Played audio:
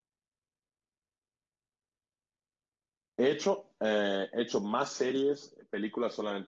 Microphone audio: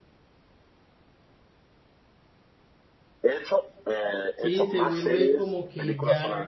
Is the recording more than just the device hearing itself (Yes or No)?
Yes